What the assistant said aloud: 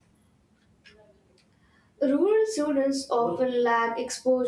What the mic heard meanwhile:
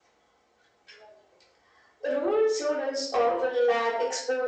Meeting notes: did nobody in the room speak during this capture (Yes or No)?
Yes